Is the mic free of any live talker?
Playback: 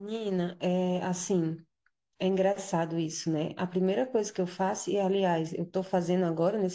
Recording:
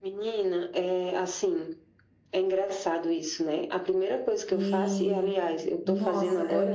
No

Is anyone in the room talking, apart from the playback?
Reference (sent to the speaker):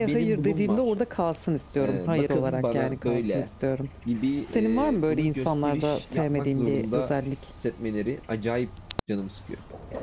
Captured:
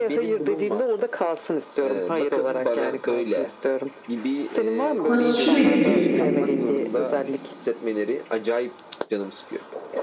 Yes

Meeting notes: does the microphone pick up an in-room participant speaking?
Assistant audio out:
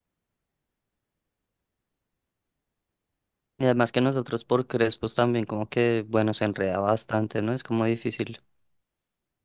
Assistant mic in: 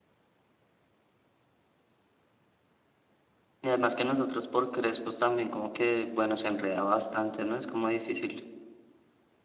No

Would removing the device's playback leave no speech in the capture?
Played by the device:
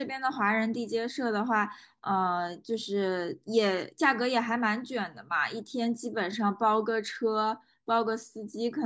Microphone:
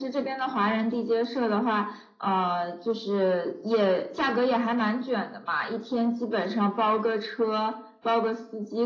Yes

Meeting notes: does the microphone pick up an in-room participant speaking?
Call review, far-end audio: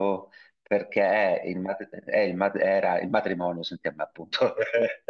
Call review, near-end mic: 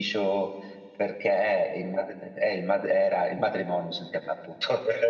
No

